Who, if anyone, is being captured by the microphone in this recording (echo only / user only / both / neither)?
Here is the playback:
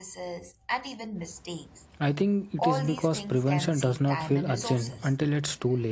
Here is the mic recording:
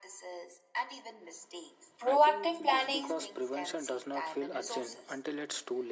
both